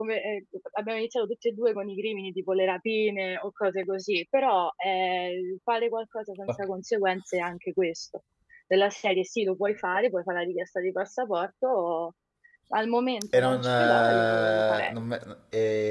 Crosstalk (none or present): present